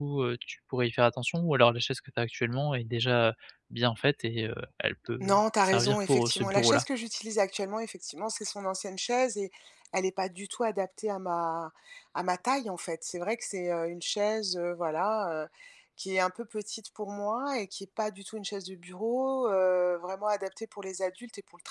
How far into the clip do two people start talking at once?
5 s

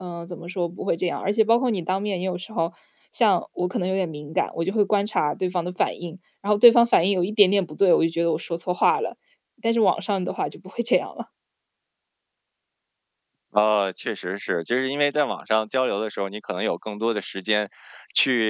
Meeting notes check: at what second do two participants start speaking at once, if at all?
none

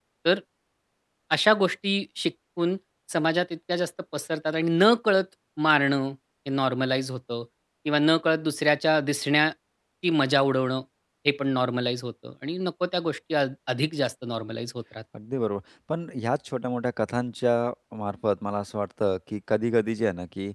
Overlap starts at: none

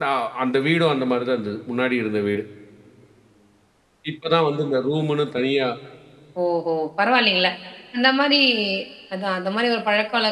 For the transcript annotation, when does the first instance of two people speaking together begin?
none

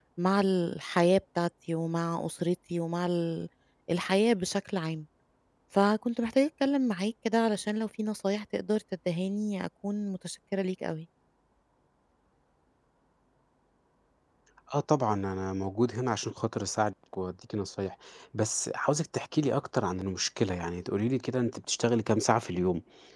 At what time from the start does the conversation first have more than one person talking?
none

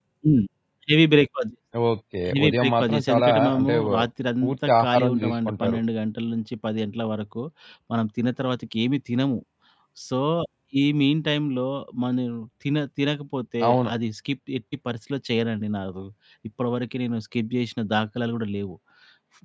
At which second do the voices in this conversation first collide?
2 s

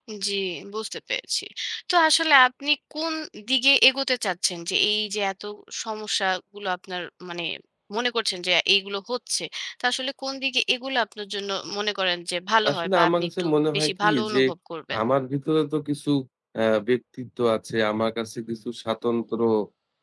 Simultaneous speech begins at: 13 s

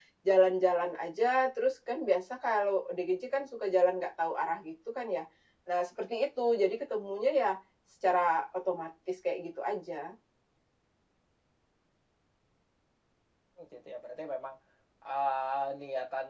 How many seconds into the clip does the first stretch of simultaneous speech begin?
none

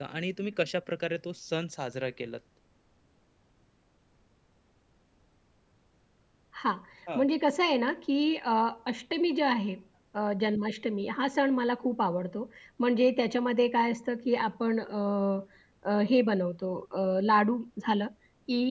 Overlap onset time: none

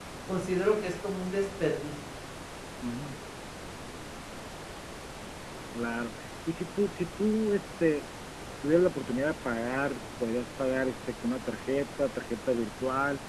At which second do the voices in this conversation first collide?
none

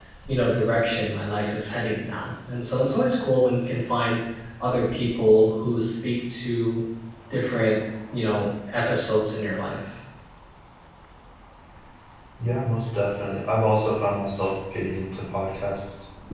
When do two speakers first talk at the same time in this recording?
none

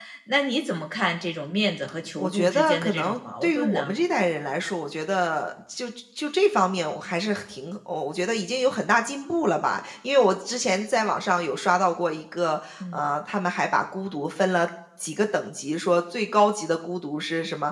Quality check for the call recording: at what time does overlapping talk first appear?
2 s

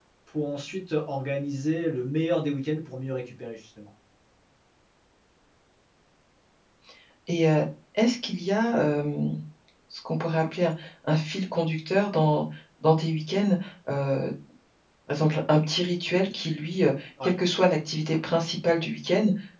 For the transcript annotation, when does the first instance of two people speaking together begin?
none

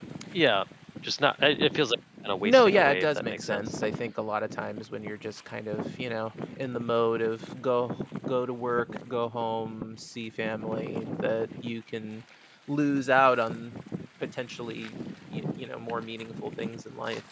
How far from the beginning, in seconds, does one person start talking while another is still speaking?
2 s

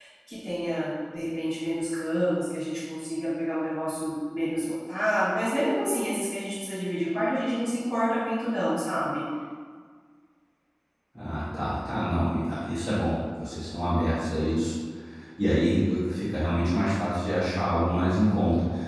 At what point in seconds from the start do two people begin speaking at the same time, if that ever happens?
none

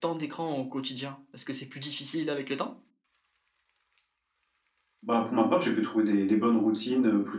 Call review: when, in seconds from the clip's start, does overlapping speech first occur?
none

